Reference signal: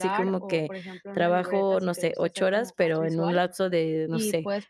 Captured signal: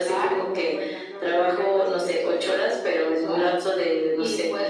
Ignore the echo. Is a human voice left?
No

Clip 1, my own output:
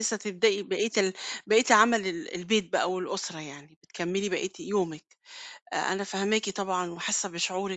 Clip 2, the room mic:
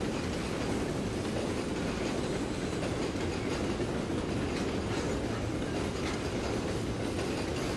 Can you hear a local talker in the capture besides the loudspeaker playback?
No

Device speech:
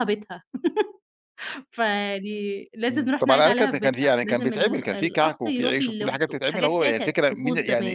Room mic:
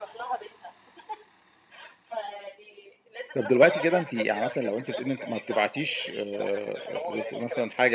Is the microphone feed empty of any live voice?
No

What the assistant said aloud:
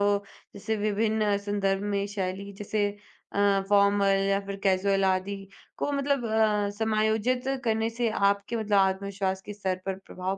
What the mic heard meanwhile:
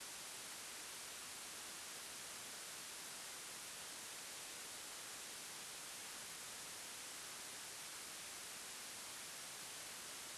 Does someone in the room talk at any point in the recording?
No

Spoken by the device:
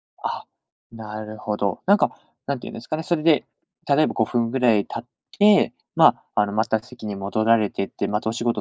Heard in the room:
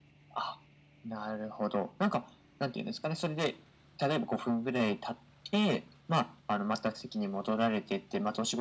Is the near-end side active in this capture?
No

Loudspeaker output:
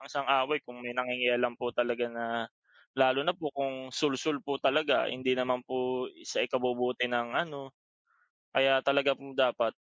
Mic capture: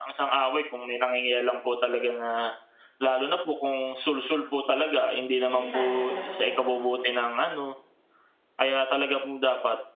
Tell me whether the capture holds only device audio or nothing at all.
No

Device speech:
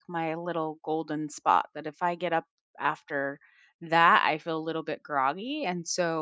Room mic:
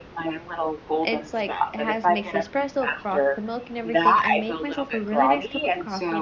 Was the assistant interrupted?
Yes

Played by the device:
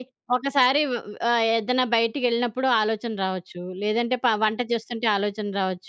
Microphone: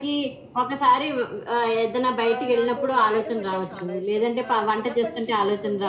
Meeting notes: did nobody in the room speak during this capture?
No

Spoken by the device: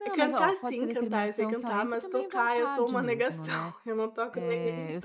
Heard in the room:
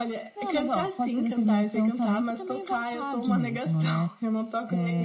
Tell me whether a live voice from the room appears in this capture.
No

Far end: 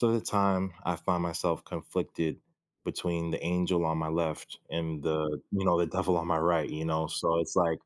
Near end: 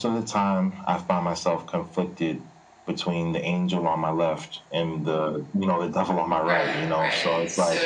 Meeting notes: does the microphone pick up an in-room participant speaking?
Yes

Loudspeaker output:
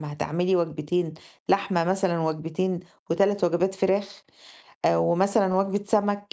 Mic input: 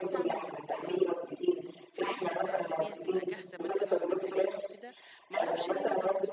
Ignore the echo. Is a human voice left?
Yes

